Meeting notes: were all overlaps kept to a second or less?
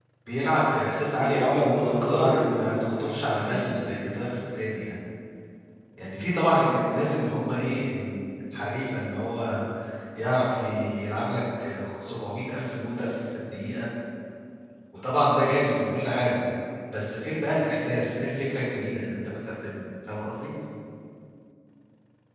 No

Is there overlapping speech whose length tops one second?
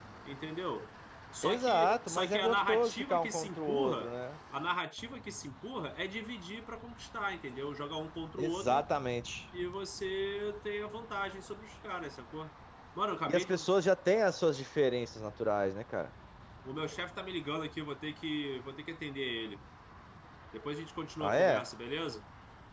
Yes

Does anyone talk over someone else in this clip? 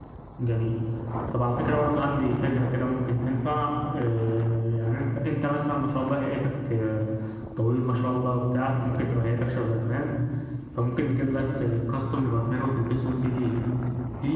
No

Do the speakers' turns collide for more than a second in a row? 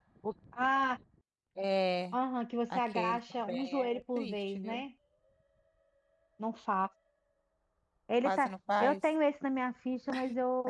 Yes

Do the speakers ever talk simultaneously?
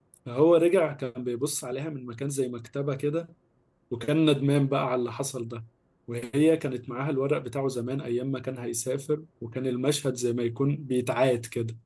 No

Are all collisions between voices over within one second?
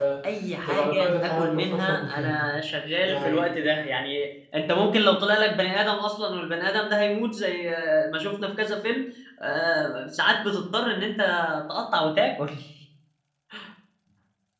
No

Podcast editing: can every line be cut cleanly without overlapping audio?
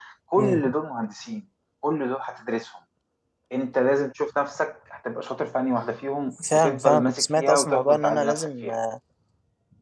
No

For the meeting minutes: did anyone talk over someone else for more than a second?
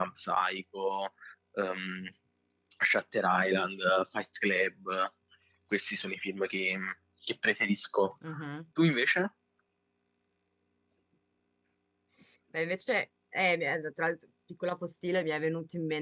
No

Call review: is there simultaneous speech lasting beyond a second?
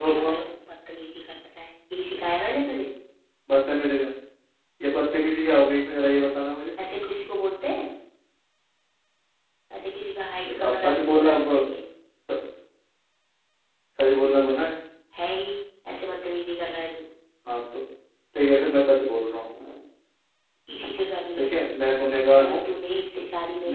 Yes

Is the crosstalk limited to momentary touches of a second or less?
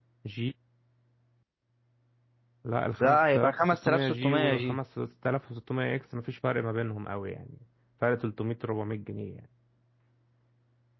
No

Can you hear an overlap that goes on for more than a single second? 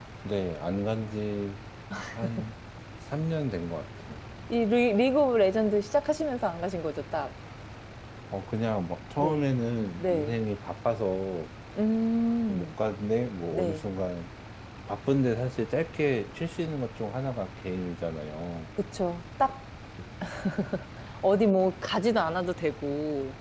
No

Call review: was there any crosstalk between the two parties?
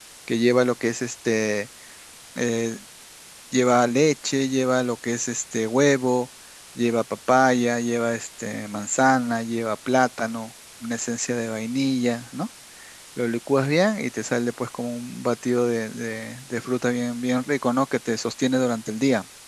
No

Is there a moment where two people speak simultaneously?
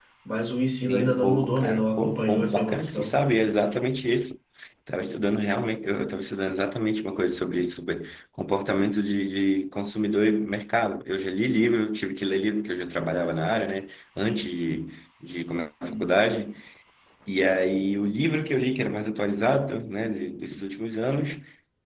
Yes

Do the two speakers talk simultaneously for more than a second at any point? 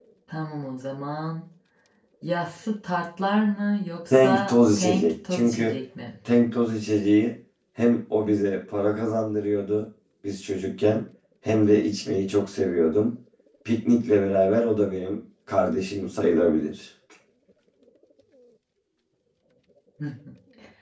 Yes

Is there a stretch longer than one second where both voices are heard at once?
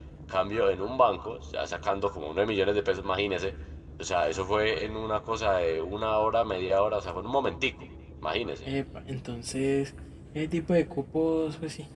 No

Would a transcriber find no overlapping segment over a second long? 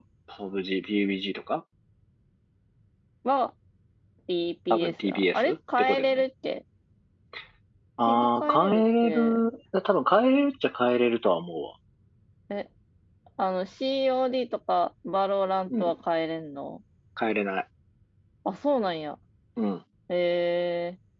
No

